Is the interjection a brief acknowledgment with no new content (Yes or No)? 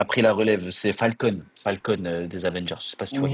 No